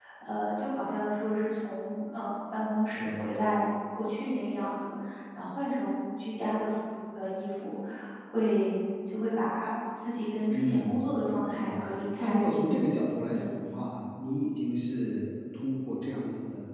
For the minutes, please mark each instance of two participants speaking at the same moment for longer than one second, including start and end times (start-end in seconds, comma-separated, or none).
none